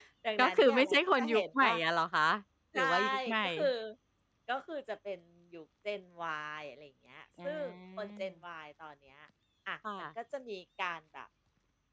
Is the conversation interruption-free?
No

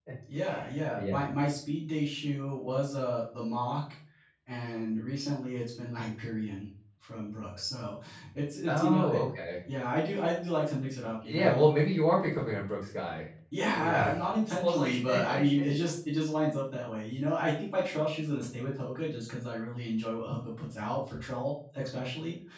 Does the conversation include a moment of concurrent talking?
Yes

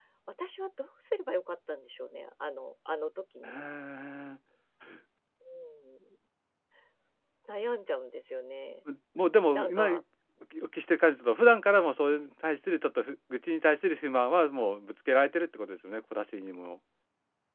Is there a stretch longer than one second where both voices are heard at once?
No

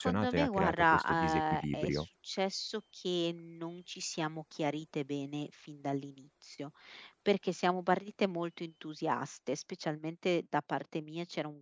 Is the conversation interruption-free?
No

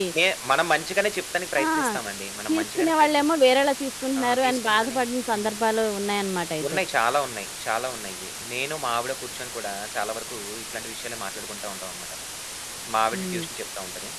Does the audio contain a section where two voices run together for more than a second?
Yes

